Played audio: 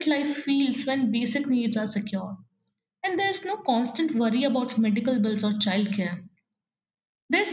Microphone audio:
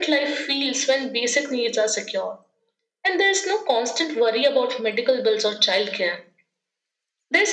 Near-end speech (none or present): none